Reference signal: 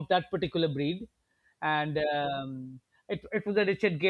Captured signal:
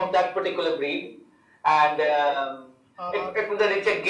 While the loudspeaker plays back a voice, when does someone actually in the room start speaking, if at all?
3.0 s

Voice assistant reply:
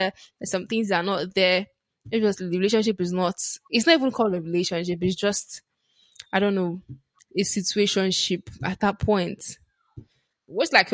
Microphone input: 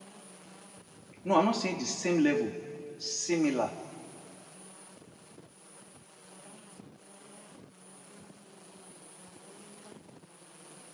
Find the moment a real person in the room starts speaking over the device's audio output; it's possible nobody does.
1.2 s

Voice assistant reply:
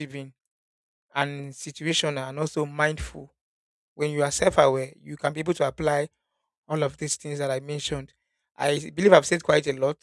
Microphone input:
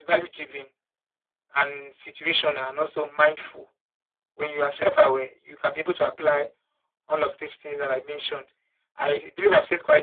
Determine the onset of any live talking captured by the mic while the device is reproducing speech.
none

